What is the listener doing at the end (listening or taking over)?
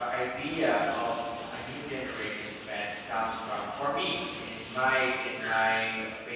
listening